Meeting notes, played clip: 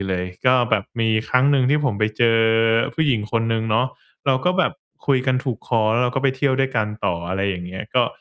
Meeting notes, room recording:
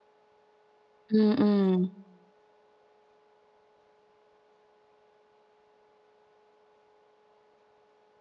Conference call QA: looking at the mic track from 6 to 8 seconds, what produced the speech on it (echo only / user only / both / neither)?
neither